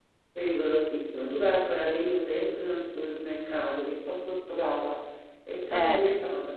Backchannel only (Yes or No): Yes